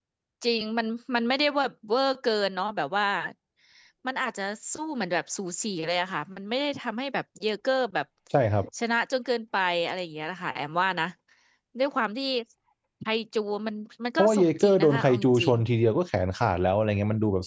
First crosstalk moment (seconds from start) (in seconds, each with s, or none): 14.2 s